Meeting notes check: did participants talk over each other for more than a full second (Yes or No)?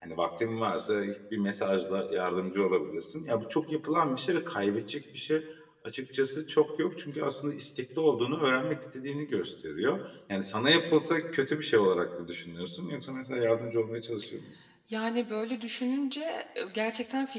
No